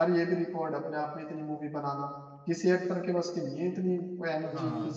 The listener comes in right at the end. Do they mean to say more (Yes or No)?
Yes